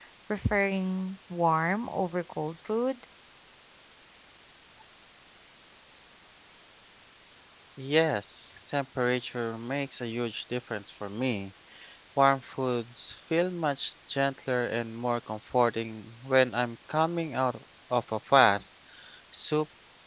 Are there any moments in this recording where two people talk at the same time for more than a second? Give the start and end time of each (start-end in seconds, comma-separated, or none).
none